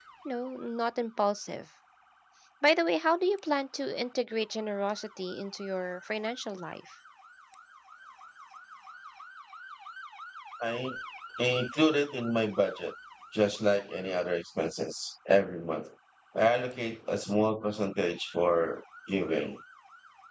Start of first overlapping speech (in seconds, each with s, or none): none